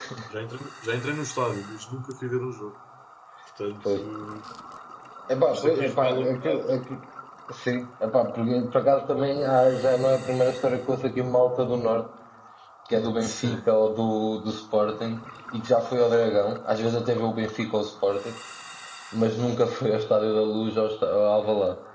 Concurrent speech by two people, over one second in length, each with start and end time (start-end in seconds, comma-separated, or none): 5.5-6.8